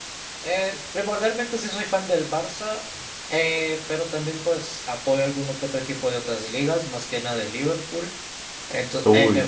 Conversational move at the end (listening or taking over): listening